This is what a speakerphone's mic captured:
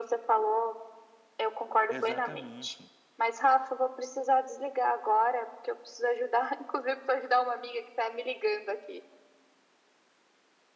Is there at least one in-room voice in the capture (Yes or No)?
Yes